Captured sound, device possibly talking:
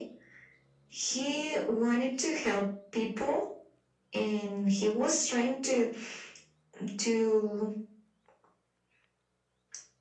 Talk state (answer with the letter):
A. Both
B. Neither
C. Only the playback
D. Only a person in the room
C